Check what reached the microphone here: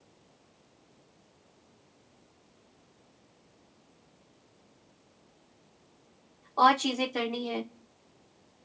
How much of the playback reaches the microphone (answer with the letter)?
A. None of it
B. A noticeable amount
A